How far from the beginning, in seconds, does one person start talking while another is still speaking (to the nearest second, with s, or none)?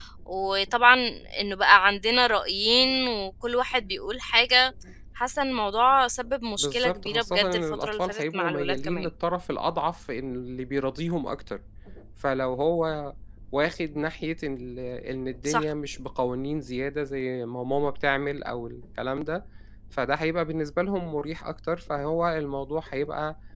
7 s